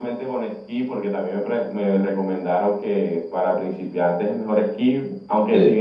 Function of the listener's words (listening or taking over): listening